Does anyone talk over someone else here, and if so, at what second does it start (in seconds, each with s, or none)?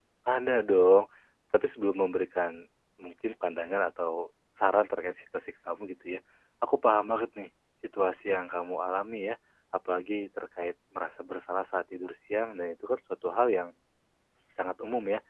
none